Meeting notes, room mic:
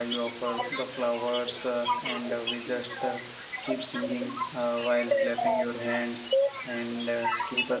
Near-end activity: present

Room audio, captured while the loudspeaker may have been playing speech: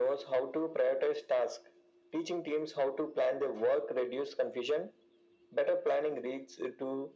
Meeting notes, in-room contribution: none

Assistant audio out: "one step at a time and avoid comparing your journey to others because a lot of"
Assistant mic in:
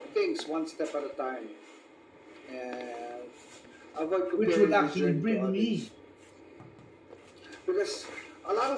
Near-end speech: present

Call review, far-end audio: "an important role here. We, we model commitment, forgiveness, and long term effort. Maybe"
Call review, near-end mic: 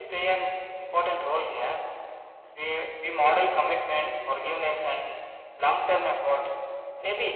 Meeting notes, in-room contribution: none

